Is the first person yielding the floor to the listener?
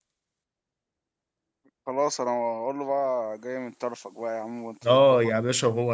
Yes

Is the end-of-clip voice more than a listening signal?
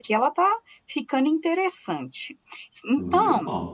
No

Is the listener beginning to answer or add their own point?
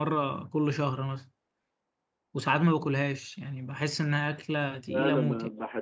Yes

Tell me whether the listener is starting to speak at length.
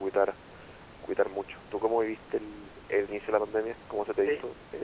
Yes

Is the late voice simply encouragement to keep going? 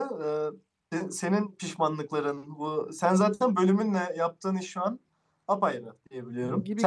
No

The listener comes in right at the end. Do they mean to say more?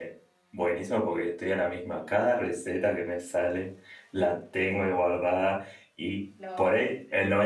No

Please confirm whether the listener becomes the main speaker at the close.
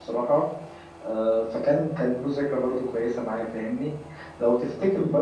No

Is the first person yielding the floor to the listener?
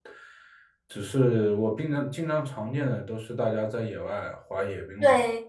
Yes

